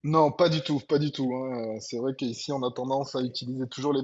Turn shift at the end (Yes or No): No